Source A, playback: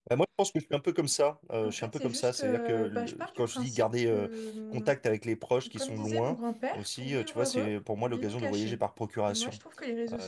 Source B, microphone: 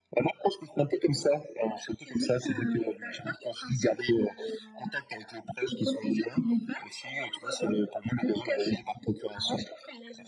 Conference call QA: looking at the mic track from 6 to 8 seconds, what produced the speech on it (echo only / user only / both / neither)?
echo only